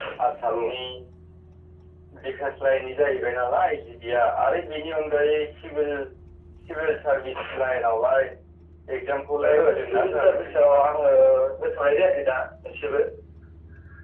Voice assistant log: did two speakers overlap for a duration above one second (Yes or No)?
Yes